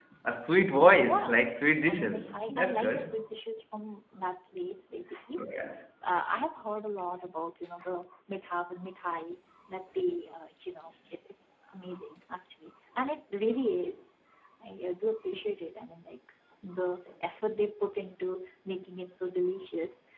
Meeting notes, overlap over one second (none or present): present